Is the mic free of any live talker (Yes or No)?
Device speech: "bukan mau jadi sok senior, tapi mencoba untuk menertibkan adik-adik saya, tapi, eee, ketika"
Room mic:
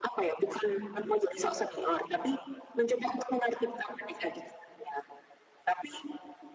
Yes